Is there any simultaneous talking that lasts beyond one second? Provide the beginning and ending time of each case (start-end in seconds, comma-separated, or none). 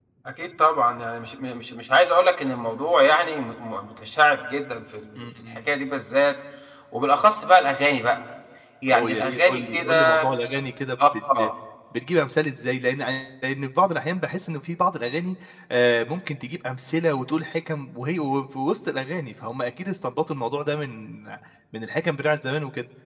8.9-10.2